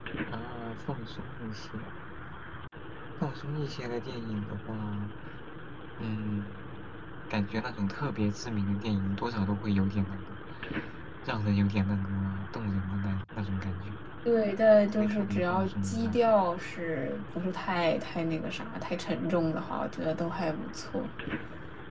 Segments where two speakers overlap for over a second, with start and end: 15.0-16.3

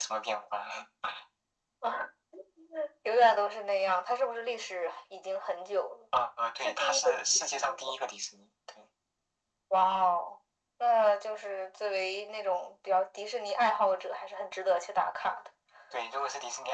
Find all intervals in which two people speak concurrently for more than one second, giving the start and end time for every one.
6.6-7.9

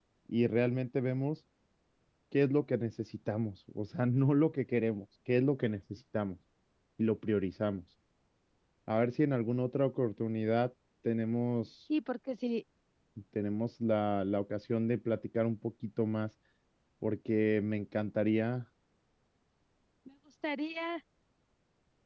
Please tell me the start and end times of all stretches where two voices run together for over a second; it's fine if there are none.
none

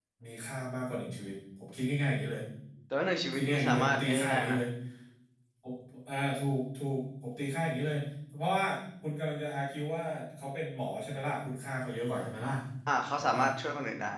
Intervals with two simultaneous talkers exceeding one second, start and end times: 3.2-4.6

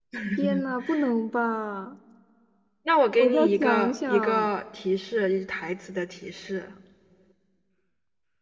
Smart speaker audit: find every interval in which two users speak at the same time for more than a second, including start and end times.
3.2-4.5

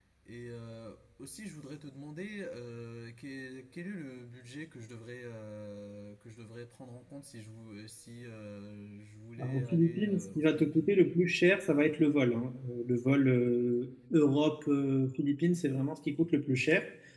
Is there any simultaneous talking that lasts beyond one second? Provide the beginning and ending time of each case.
9.4-10.9

